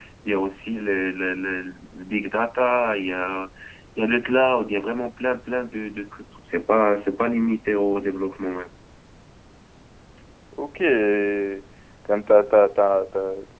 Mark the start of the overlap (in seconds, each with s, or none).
none